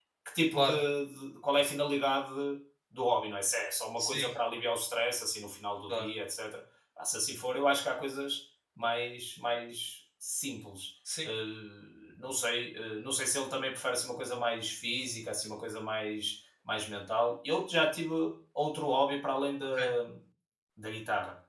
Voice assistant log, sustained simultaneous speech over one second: none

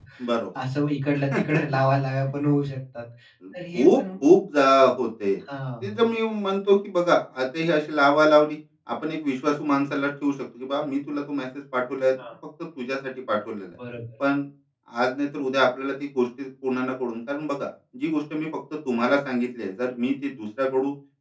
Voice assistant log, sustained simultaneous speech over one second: none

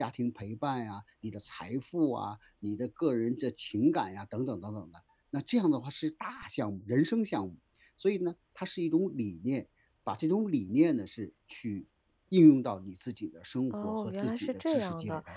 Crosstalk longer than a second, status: present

